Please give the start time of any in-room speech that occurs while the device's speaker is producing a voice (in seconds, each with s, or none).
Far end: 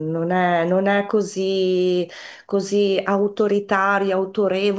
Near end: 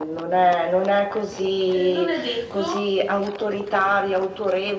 1.7 s